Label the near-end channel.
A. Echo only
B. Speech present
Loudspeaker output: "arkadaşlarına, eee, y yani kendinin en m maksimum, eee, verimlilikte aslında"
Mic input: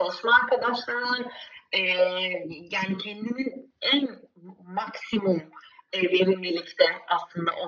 A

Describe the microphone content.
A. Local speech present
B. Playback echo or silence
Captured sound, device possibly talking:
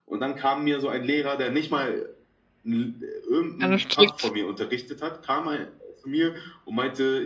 A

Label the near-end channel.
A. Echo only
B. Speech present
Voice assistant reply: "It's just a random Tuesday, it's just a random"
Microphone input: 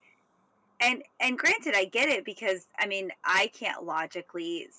B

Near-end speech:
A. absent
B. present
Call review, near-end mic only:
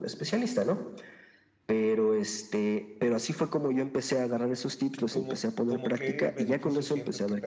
B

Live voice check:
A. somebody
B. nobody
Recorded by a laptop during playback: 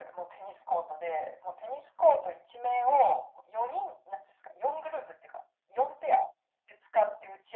B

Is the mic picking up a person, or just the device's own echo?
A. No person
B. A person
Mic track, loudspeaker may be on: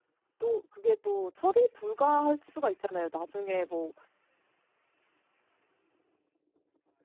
B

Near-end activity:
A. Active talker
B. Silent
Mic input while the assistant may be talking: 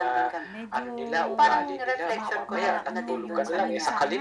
A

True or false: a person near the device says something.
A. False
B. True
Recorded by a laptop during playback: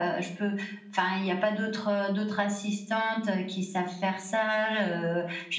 A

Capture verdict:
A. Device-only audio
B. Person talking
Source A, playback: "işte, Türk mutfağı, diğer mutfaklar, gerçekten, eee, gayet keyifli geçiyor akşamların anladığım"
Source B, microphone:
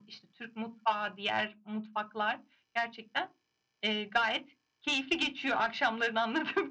A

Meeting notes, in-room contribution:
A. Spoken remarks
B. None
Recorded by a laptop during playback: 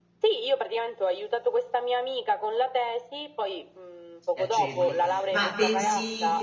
A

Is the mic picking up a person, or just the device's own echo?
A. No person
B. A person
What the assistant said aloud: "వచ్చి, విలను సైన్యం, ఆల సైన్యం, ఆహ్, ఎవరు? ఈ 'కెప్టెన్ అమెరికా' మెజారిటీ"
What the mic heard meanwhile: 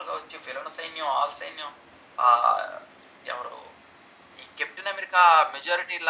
A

